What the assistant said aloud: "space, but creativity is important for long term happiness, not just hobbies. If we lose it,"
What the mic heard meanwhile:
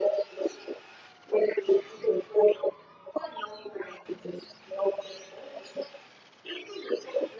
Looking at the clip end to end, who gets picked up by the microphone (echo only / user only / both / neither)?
echo only